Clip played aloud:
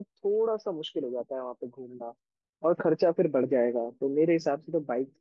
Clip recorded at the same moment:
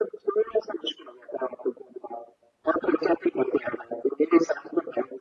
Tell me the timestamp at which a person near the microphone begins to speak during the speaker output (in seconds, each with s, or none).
none